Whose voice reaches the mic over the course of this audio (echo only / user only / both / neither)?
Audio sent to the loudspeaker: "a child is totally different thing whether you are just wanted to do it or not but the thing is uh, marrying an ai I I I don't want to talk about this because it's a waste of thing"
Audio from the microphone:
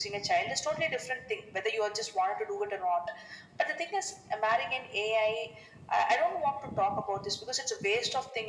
echo only